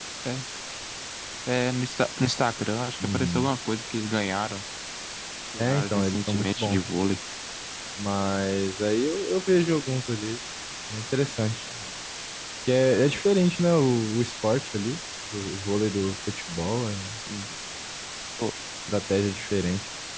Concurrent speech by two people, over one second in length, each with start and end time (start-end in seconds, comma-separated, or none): 5.6-6.8